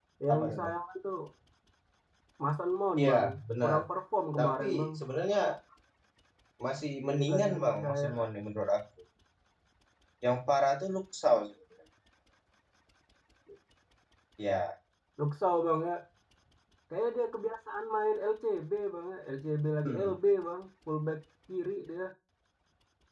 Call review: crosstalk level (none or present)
present